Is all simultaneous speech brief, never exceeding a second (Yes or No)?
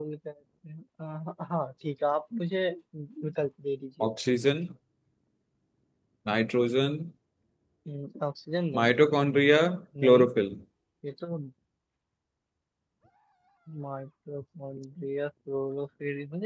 Yes